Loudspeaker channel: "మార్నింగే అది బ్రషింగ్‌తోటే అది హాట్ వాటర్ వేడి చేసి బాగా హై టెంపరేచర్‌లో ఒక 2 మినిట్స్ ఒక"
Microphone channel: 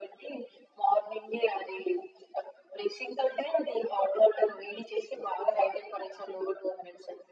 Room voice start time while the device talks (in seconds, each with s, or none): none